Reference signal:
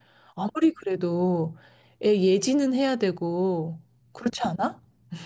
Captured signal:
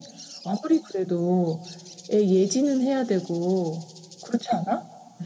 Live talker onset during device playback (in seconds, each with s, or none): none